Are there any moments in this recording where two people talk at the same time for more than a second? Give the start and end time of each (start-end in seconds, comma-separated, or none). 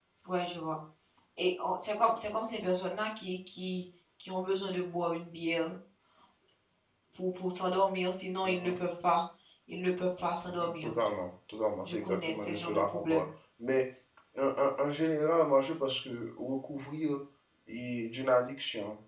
11.8-13.2